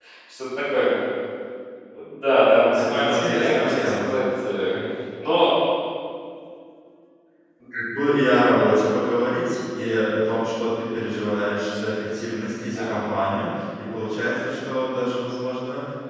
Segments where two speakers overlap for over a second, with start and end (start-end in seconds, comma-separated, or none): 2.7-4.1